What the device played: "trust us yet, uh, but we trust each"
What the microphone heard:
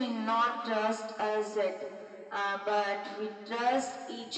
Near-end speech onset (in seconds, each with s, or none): none